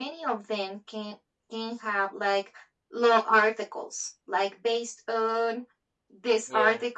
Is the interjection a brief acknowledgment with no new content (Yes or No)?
Yes